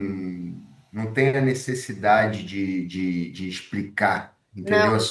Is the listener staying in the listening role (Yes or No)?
No